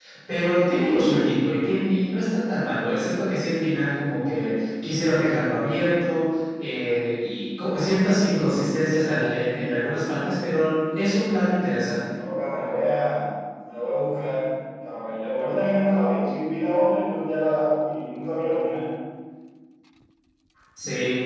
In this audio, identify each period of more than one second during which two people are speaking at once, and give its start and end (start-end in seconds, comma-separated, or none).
none